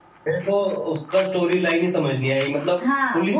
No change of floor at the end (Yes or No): No